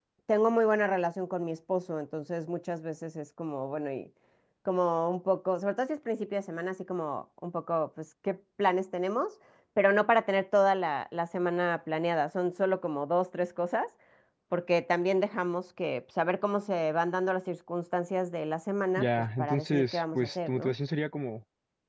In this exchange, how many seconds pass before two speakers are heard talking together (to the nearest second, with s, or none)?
19 s